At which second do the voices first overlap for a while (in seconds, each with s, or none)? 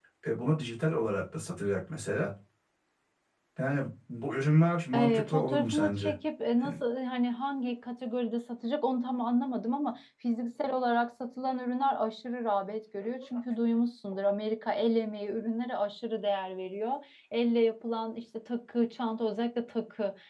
4.9 s